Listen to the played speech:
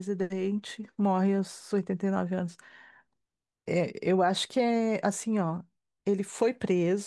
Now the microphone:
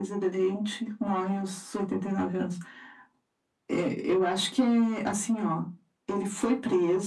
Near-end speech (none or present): none